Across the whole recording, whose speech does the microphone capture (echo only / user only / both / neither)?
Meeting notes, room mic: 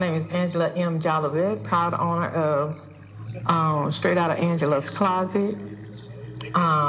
echo only